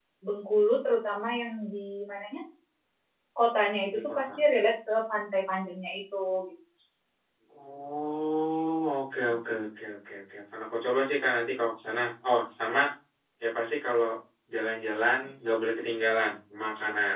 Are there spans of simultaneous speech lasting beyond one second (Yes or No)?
No